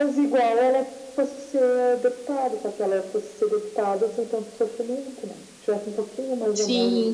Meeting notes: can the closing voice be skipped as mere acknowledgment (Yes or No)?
No